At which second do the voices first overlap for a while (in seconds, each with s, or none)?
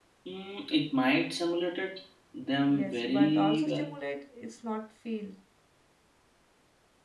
2.6 s